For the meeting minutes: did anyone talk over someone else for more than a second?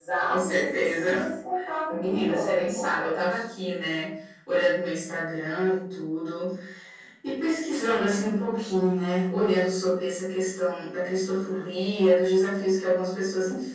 Yes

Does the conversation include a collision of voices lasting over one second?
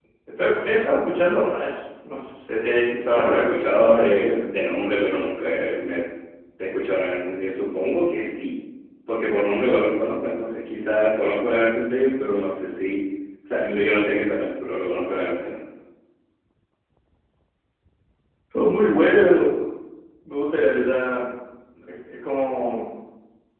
Yes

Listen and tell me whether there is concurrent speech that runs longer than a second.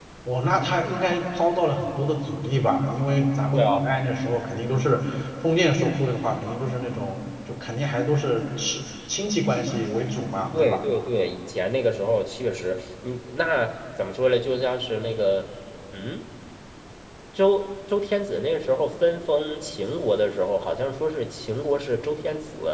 No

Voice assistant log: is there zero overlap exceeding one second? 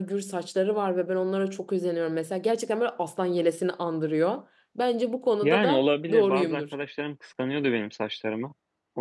No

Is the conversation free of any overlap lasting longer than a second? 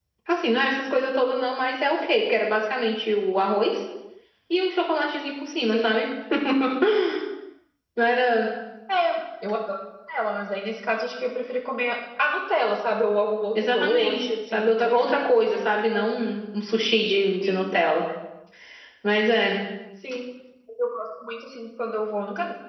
No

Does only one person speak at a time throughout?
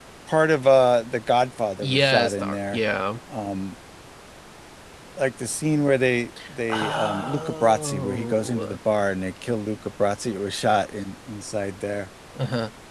No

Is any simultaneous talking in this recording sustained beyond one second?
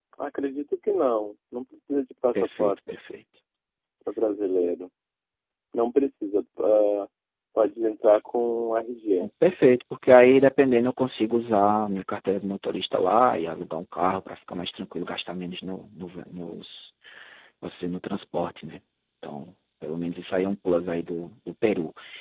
No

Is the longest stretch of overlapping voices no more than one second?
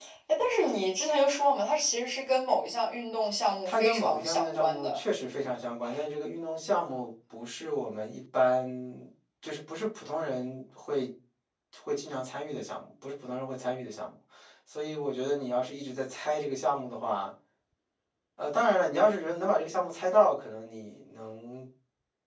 No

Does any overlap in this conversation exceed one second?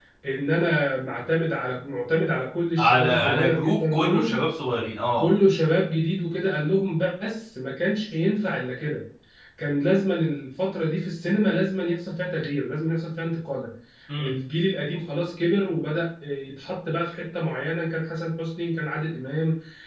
Yes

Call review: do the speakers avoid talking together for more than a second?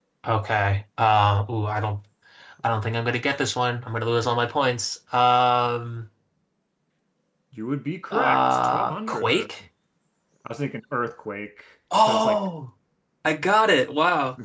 No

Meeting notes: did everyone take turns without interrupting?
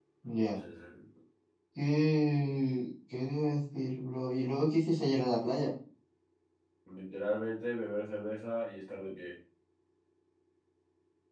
Yes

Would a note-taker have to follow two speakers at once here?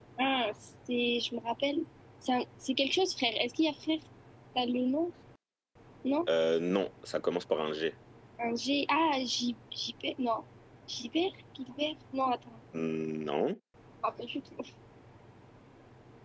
No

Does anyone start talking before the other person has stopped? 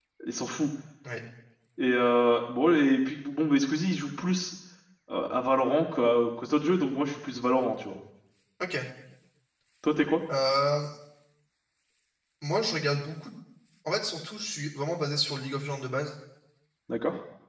No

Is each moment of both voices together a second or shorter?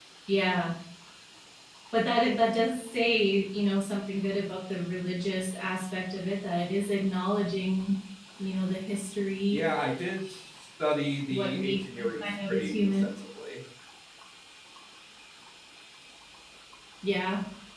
No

